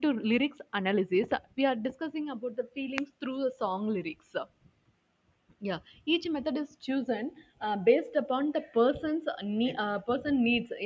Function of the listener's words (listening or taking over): listening